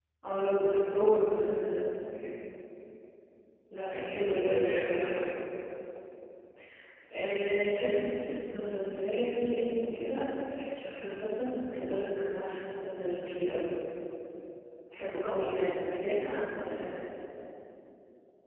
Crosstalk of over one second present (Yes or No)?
Yes